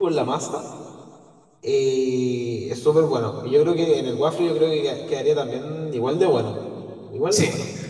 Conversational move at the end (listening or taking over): taking over